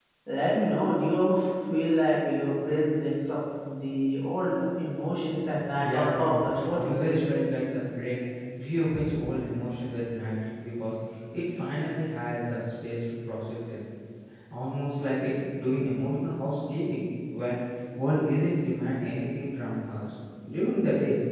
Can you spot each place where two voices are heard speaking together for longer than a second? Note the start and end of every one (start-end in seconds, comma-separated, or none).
5.8-7.2